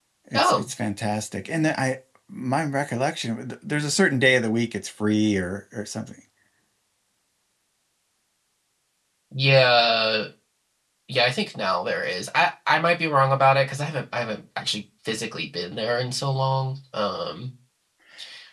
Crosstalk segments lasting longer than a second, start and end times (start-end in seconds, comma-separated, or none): none